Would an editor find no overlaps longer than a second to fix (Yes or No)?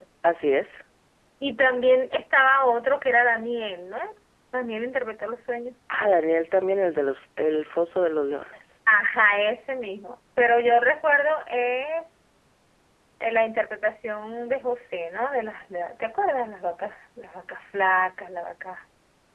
Yes